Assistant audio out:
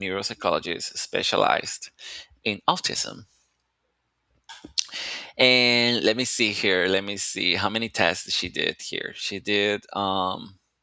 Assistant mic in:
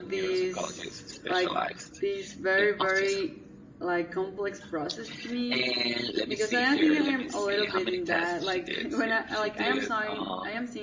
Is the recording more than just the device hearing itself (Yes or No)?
Yes